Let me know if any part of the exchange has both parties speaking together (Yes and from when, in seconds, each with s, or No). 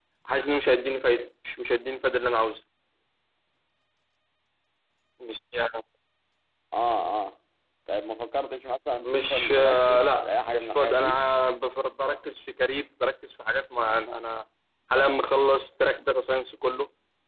Yes, from 9.0 s